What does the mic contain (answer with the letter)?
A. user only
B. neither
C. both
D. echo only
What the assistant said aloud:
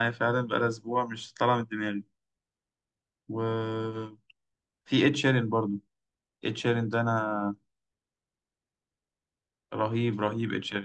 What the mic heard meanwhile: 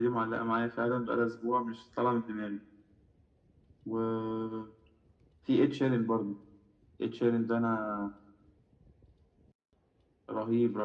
D